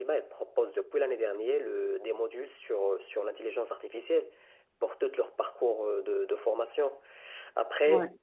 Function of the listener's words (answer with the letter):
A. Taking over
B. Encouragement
B